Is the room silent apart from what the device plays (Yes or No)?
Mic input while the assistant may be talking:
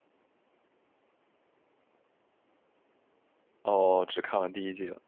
No